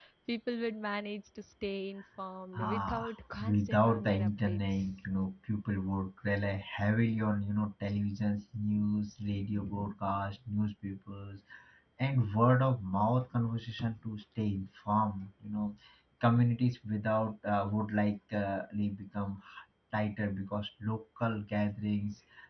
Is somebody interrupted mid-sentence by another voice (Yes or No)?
Yes